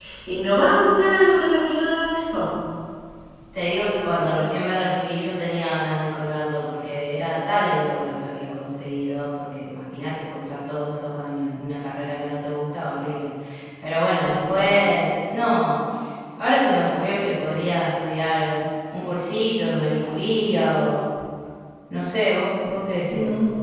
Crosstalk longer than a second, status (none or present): none